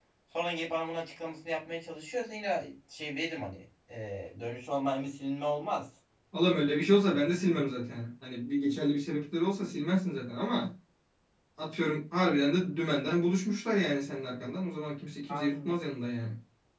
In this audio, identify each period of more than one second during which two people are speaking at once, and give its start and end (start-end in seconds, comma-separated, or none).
none